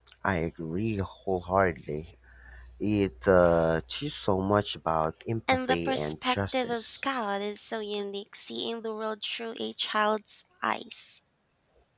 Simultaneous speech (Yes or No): Yes